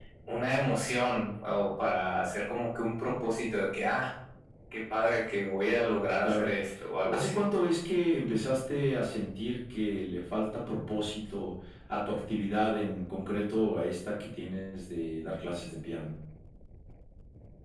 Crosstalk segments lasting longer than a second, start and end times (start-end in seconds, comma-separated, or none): none